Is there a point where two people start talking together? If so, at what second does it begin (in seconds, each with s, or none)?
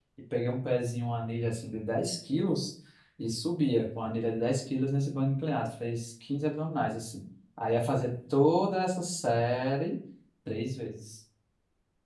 none